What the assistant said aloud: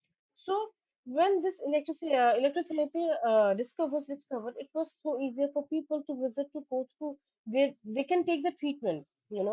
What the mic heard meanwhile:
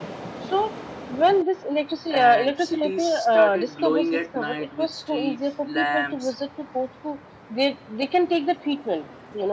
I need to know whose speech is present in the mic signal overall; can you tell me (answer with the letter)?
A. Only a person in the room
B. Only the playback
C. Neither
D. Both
D